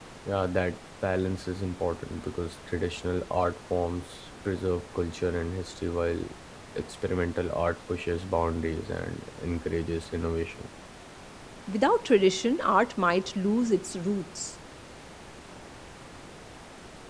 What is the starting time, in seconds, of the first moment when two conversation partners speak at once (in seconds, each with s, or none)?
none